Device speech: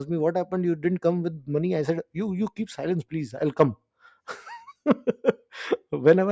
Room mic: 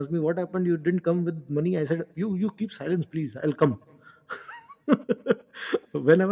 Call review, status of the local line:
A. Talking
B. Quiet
B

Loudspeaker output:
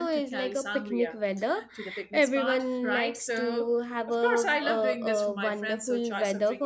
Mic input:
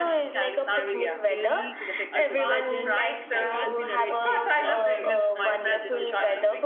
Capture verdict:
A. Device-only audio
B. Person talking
B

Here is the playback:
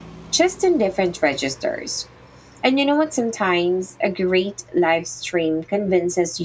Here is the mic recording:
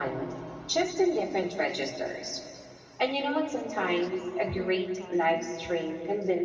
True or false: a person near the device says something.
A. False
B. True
B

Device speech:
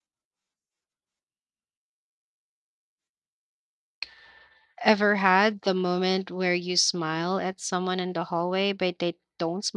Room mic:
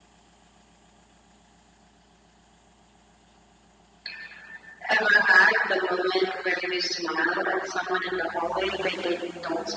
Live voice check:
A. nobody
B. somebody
A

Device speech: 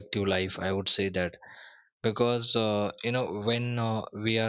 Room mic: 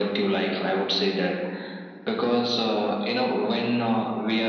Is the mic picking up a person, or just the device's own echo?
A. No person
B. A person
A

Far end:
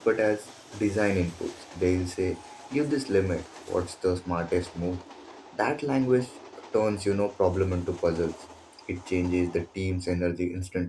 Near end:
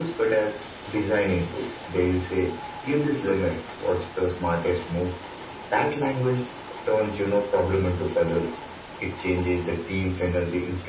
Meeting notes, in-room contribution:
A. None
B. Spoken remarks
A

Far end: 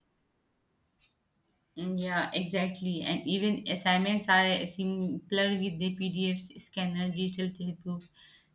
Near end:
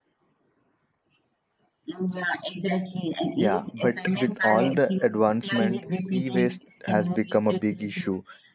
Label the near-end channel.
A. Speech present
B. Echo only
A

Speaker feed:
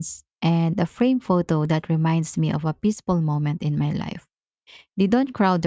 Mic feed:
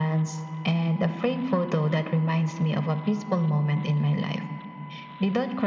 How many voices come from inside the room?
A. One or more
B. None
B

